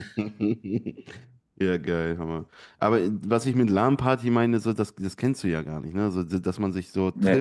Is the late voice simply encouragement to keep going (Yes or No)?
Yes